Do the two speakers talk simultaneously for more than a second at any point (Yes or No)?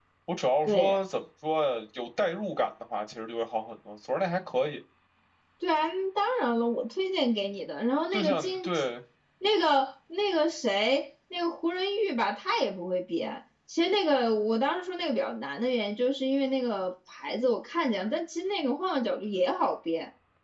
No